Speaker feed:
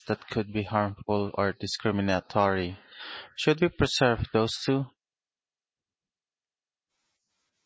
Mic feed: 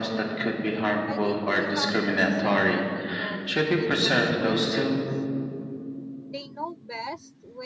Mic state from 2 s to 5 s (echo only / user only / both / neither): both